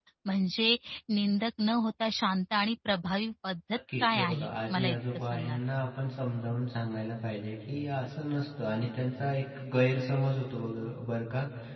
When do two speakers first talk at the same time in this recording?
4.0 s

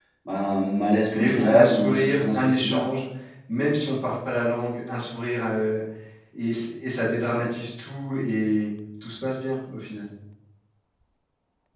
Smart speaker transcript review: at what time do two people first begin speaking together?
1.1 s

